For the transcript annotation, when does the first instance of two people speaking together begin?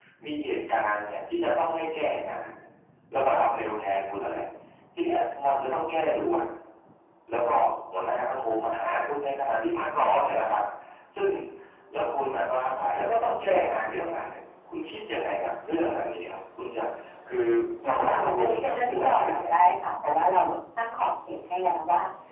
17.8 s

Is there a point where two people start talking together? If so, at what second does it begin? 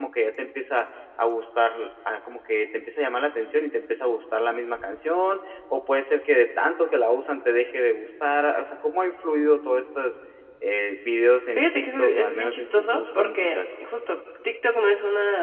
11.6 s

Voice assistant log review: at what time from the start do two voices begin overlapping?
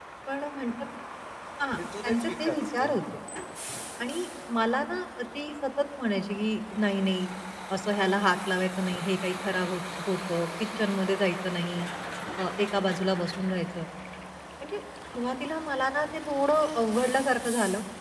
1.8 s

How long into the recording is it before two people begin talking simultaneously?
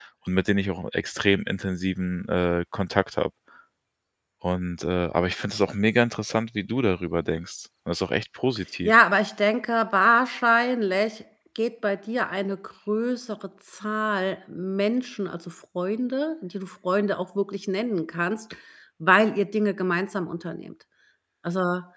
none

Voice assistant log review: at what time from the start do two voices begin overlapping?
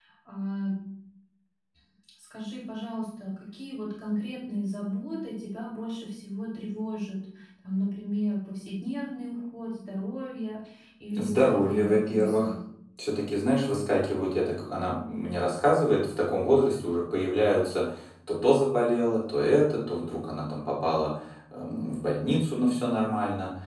11.1 s

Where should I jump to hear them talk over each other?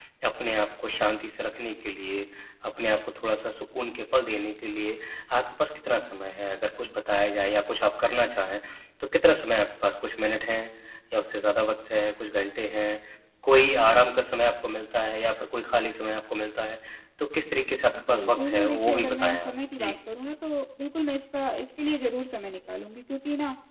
17.9 s

